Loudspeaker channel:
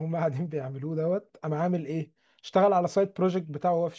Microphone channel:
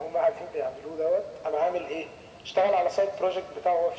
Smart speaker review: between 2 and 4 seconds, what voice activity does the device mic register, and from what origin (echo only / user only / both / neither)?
echo only